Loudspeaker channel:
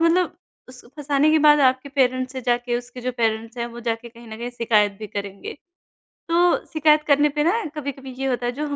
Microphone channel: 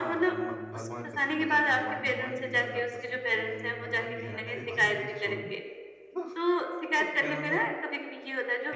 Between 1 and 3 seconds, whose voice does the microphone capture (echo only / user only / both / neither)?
both